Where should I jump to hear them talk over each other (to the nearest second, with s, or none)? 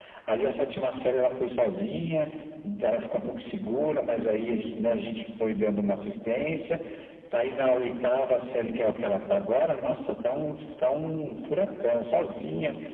none